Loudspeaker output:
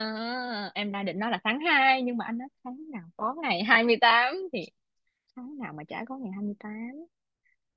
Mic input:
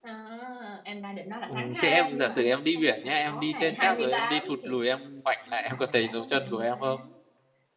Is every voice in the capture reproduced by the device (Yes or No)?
No